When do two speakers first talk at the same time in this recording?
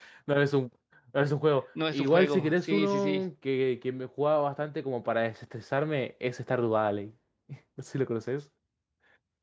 1.9 s

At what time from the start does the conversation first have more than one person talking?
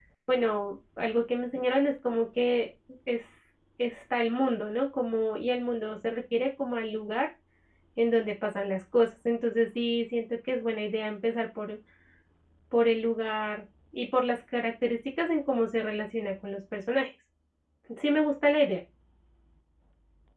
none

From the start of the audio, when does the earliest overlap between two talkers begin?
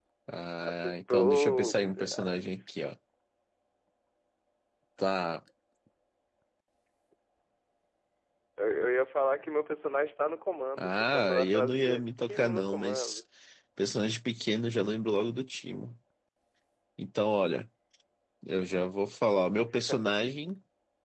0.6 s

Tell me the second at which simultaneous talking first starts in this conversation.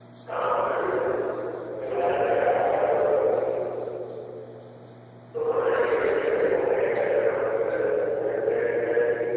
1.8 s

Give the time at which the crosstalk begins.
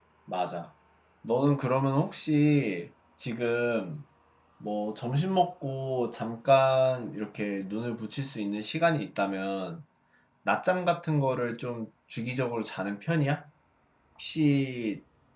none

